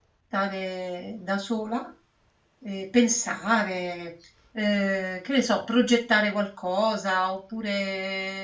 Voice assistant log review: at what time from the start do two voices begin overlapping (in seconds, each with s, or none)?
none